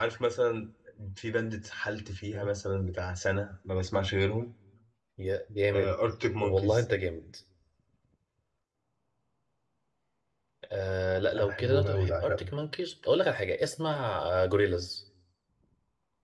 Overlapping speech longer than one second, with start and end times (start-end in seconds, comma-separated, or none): 11.3-12.5